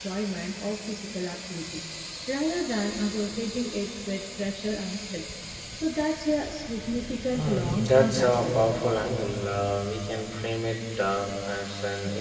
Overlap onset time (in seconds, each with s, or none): 7.3 s